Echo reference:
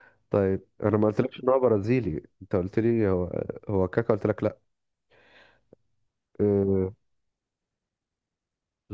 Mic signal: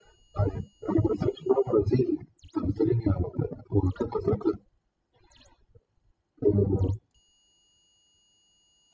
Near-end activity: none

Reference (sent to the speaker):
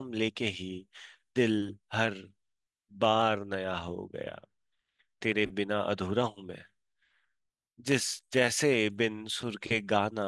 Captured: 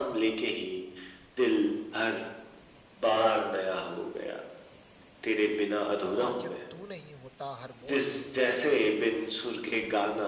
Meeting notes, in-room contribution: present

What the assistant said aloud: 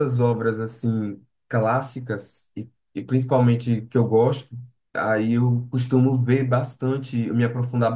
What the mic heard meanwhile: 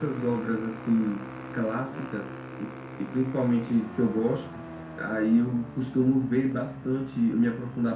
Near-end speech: none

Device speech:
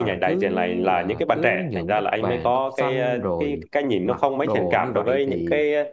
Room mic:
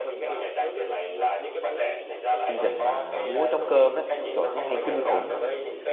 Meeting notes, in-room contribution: present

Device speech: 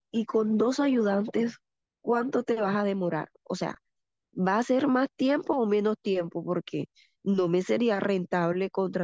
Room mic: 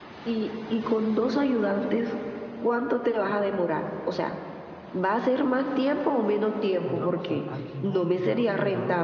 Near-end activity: present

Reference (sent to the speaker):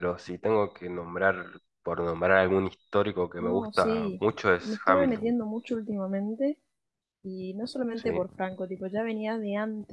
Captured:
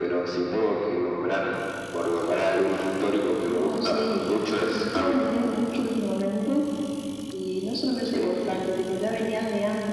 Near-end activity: none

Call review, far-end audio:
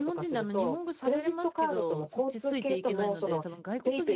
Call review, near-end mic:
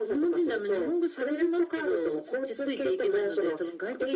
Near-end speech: none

